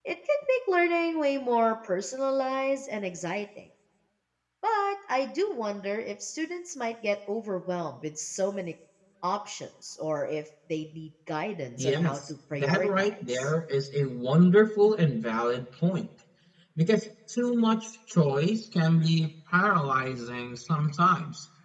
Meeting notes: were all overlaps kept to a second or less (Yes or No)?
No